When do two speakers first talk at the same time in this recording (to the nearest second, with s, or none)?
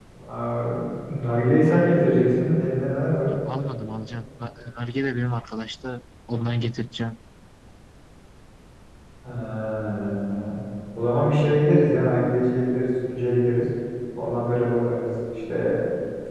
none